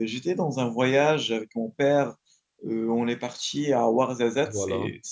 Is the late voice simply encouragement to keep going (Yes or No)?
Yes